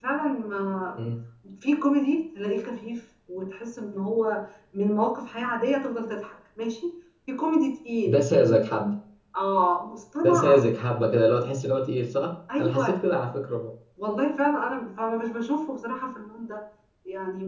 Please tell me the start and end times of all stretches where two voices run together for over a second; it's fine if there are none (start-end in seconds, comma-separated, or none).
none